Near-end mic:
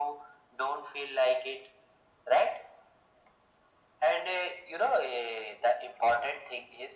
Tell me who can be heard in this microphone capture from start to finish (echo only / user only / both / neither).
echo only